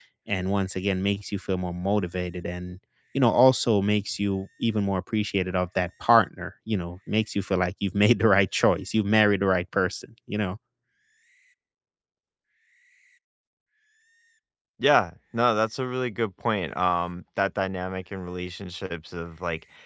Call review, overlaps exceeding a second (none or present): none